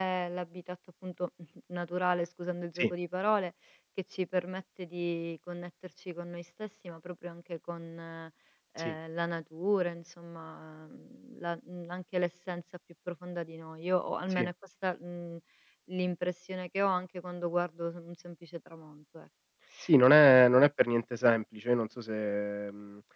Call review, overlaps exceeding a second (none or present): none